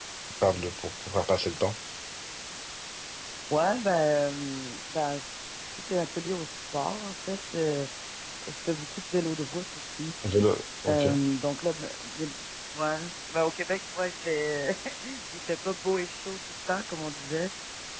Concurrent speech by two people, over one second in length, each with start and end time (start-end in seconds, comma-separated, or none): none